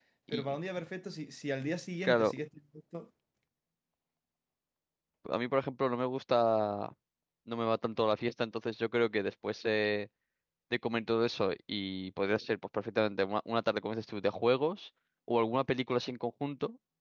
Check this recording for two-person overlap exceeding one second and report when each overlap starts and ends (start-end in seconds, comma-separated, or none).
none